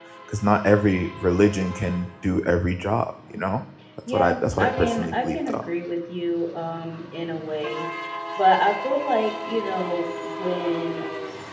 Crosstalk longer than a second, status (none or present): present